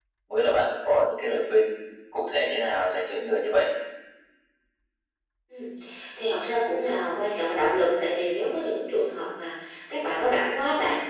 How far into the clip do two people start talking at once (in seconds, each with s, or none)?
none